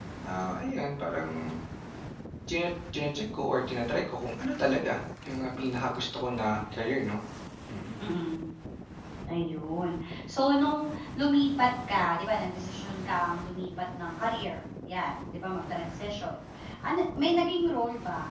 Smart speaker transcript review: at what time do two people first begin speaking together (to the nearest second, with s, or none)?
none